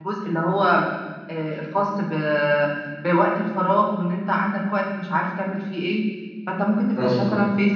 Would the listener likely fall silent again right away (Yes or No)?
Yes